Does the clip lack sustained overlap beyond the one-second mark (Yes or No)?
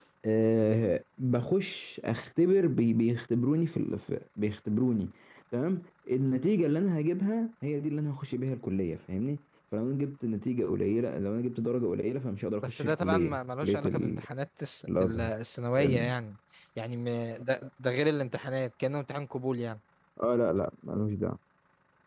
No